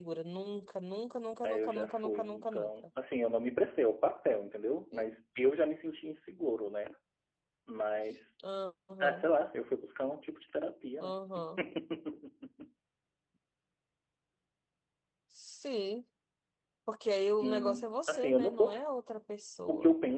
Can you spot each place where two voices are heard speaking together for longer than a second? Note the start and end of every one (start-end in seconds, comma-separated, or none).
1.4-2.7, 17.4-18.8